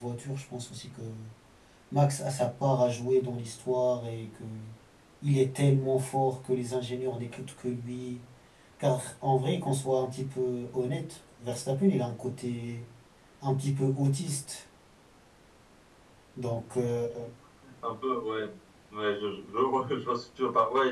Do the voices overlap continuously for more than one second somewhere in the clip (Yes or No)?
No